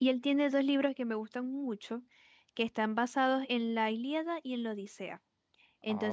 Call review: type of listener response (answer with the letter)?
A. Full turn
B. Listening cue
B